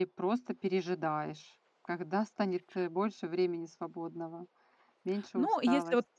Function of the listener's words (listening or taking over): taking over